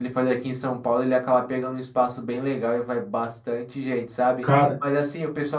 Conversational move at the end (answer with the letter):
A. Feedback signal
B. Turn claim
A